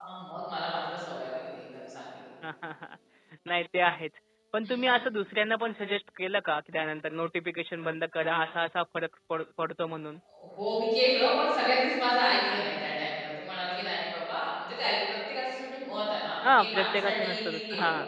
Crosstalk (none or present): present